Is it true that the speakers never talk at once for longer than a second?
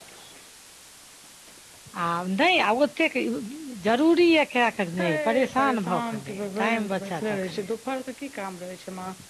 No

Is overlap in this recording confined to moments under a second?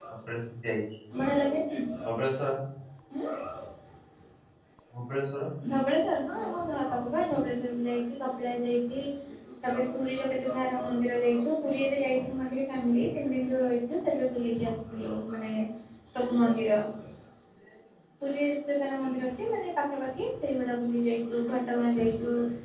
Yes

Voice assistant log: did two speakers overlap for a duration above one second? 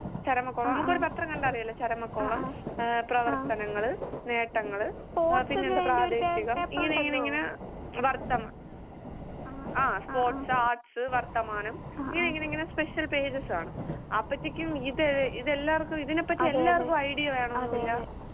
Yes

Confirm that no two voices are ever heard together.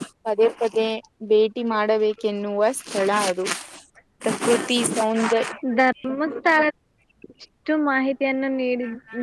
Yes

